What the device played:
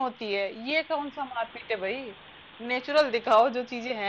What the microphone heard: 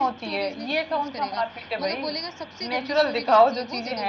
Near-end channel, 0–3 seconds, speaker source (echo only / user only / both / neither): both